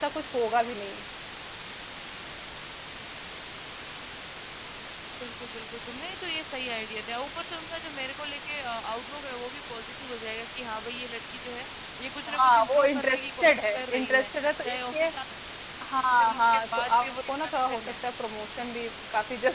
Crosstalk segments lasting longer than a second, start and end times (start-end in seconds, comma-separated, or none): 12.3-14.3, 16.0-17.9